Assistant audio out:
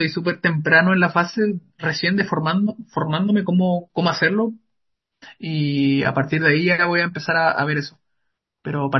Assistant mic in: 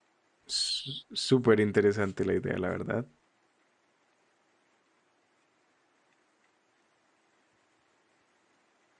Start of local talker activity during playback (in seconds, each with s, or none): 0.5 s